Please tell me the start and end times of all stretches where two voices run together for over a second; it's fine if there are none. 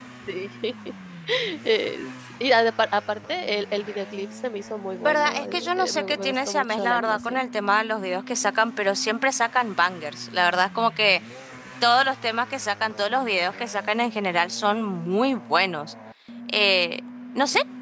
5.0-7.4

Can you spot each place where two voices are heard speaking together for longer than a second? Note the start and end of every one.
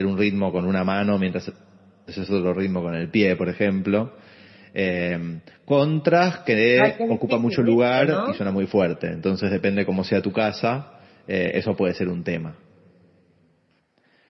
6.8-8.4

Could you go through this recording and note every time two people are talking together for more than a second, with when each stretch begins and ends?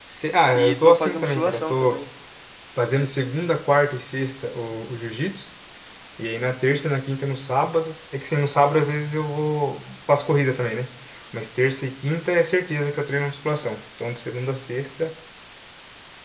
0.5-2.0

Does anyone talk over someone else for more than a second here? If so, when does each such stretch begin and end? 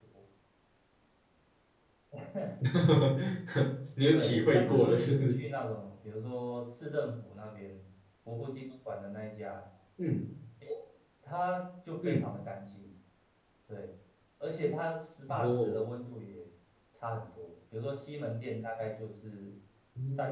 4.1-5.4

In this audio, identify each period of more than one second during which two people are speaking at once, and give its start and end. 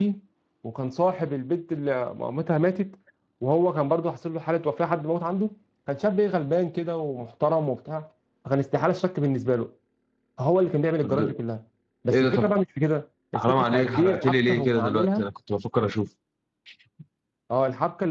13.4-15.3

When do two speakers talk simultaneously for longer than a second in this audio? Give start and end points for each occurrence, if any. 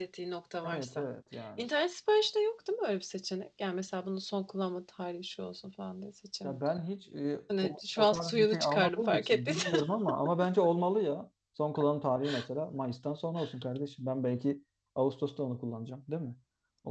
7.6-9.8

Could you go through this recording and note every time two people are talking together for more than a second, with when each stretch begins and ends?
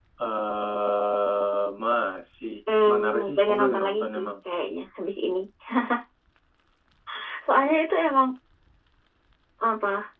2.8-4.3

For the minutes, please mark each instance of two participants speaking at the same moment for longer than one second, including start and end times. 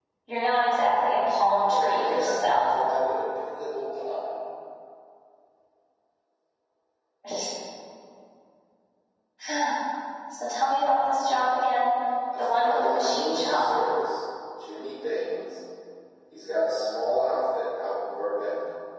1.5-2.7, 12.4-13.6

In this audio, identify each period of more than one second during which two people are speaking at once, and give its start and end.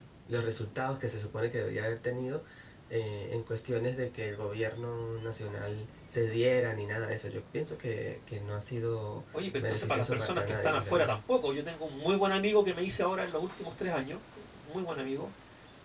9.6-11.1

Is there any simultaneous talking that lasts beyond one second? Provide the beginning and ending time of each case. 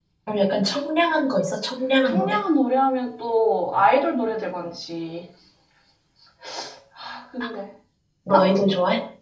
none

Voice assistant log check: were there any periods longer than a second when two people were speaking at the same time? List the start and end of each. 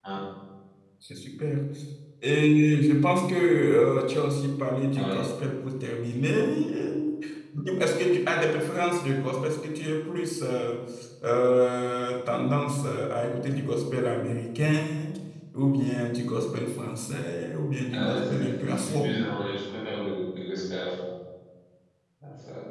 17.9-19.2

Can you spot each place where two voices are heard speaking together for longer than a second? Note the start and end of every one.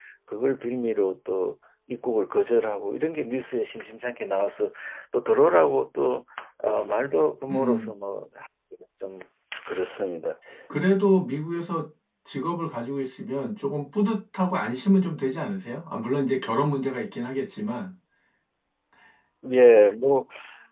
none

